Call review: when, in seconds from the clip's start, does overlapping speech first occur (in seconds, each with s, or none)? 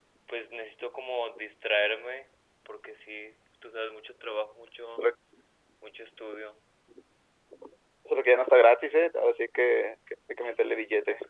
none